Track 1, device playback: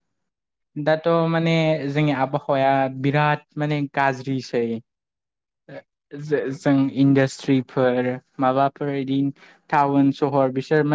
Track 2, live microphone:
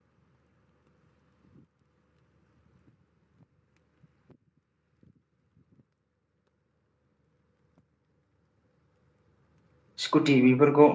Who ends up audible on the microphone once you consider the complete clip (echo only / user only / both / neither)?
user only